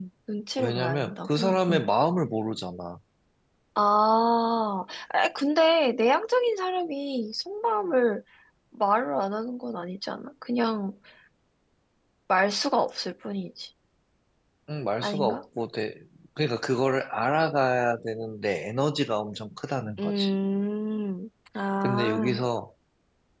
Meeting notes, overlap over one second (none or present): present